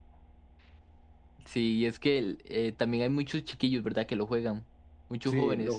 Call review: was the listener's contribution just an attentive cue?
No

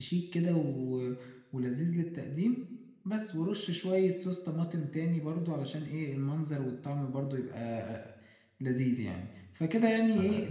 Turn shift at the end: No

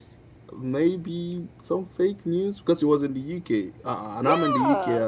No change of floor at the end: Yes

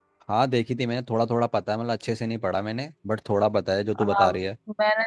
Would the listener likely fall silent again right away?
No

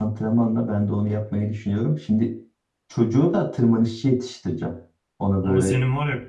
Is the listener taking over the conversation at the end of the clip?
Yes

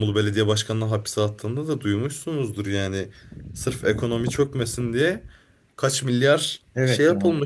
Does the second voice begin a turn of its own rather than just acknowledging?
Yes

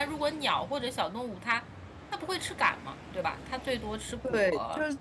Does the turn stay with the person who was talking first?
No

